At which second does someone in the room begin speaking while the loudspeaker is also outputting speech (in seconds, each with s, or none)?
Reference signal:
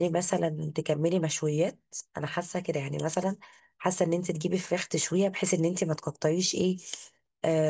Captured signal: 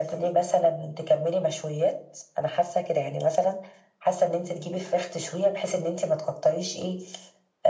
none